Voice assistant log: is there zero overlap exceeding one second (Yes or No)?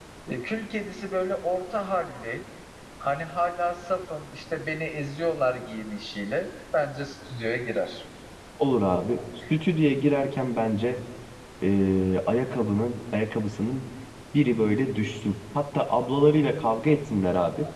Yes